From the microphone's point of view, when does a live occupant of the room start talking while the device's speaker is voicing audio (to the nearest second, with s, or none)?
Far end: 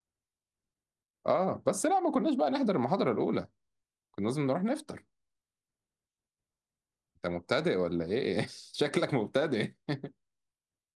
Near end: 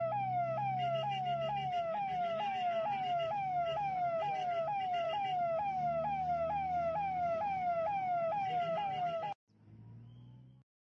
none